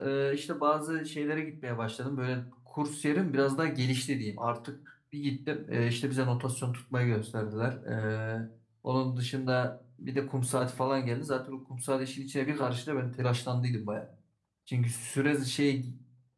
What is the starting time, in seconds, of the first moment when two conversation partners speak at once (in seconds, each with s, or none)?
none